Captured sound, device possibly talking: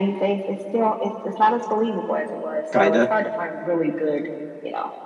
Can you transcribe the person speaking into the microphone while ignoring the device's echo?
kind of.

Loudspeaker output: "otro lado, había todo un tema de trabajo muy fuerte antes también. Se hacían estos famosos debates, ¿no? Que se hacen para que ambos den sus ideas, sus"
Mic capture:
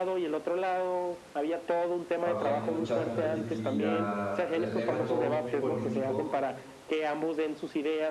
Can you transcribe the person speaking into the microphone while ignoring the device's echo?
había mucha competitividad, eh, era todo muy político

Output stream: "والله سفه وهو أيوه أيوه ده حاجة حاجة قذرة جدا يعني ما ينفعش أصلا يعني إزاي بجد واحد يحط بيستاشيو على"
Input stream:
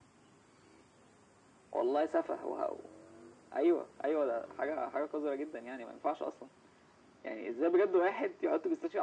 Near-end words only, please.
none

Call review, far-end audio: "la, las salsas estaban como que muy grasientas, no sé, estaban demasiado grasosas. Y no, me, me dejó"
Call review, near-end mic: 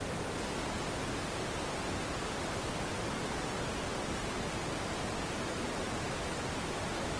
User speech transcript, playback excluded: none

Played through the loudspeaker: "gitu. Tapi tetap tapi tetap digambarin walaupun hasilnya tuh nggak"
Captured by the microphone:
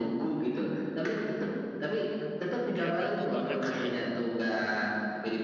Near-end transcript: dia bantu banget sih.

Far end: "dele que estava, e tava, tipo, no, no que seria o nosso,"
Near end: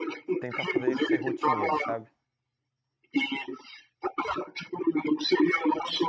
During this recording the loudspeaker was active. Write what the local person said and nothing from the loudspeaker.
tentar fazer isso ser rotineiro, sabe?

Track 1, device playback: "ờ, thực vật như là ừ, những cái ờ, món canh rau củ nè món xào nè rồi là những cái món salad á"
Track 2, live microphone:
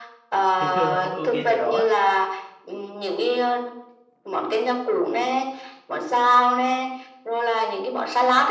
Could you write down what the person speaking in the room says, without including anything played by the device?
thường thường là không ưu tiên cái đó

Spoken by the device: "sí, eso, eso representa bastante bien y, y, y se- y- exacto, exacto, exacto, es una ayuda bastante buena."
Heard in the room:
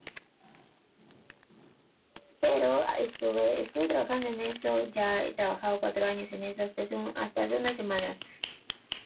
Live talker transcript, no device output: pero estuve, estuve trabajando en eso, ya he trabajado cuatro años en eso hasta hace, un- hasta hace unas semanas

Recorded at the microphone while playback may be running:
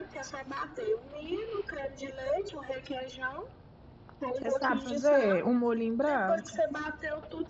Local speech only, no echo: Você sabe fazer um molhinho branco?

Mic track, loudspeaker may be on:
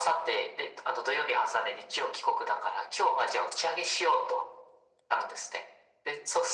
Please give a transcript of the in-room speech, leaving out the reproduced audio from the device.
none

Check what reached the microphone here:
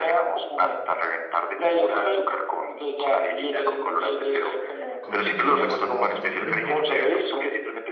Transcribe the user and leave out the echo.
con ellos pasamos por todo el colegio,

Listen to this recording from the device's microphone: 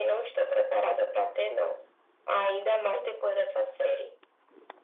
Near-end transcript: none

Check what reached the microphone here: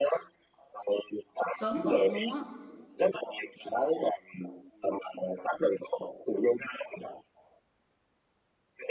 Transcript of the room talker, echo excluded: sớm bệnh luôn á.

